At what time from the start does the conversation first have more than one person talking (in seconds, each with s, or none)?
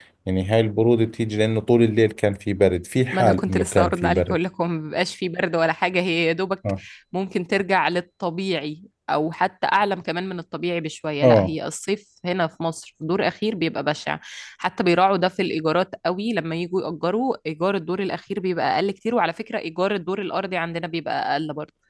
3.1 s